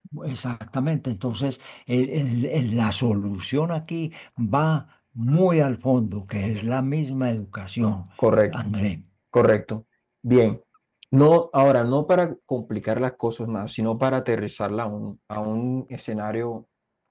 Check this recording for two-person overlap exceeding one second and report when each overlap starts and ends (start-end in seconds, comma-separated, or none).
none